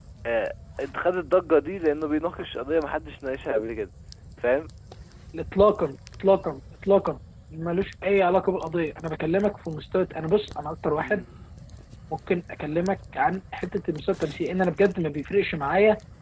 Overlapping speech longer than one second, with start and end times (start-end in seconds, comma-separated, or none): none